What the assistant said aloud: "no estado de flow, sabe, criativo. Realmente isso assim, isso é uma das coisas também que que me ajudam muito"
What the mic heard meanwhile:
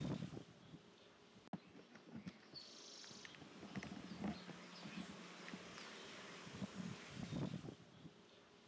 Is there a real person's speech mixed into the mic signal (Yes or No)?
No